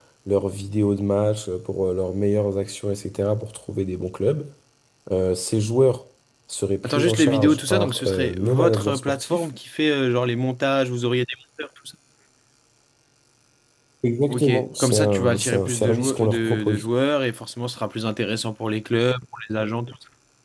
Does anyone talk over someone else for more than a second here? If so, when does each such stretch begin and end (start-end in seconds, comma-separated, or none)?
6.8-9.4, 14.3-16.9